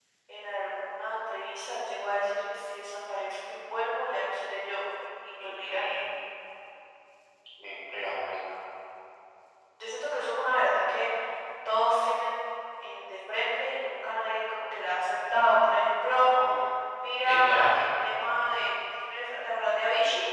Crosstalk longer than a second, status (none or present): none